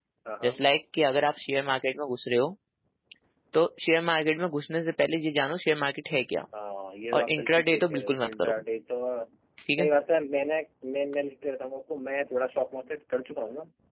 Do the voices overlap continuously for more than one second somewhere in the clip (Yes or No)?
Yes